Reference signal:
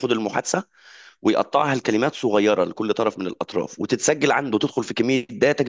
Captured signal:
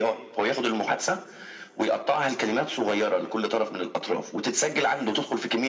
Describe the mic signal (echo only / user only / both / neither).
echo only